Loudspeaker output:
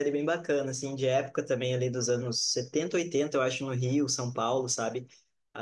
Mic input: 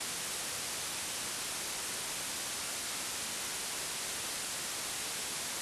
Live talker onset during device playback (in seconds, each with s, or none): none